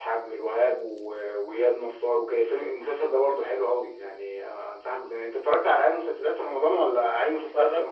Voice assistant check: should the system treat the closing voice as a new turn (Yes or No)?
Yes